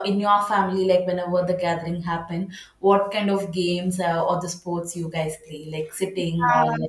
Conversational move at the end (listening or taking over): taking over